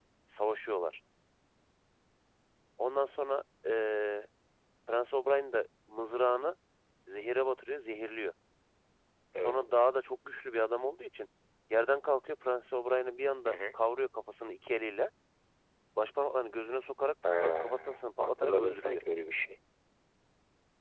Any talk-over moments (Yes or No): Yes